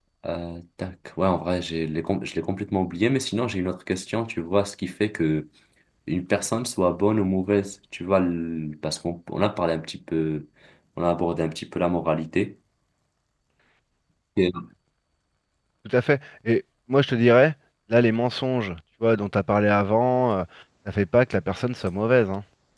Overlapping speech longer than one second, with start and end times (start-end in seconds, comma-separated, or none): none